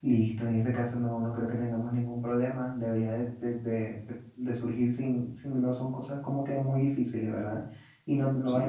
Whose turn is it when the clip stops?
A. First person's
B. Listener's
A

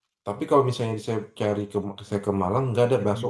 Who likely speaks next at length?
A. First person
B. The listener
B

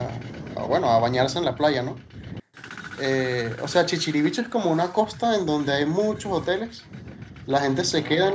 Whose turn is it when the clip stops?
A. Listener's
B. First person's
B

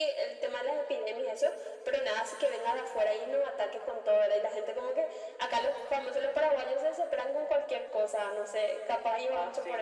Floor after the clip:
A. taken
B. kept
A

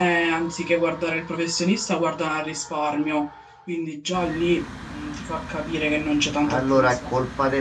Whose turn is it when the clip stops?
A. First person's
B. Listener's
B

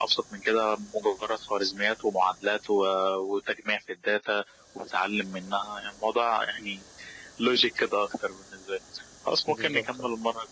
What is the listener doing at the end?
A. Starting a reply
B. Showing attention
B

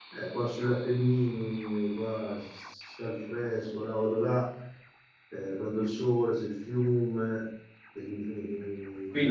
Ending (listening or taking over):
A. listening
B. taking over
B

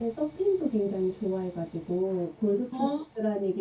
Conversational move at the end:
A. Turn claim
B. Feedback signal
B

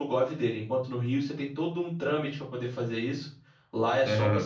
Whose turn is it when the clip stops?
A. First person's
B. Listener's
A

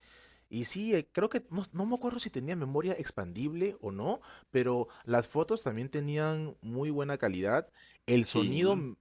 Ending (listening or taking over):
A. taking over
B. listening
B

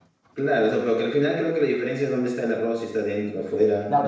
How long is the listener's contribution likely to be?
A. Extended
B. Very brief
A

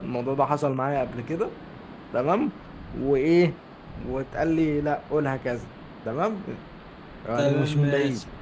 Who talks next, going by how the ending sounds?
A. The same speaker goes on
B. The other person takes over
B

